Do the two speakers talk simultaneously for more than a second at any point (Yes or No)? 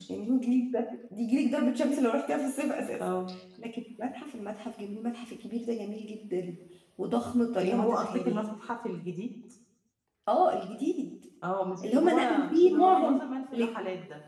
Yes